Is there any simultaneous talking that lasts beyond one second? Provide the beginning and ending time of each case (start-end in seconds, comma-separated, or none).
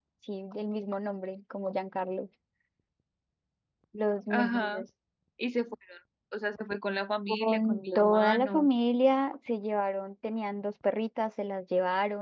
7.3-8.7